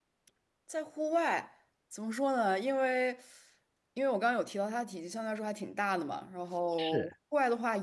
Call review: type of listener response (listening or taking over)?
listening